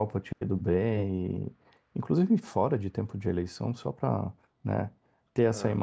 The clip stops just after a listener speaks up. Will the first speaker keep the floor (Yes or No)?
Yes